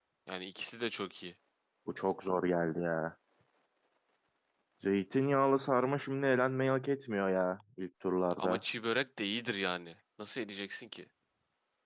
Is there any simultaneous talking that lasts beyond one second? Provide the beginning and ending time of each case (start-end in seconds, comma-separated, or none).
none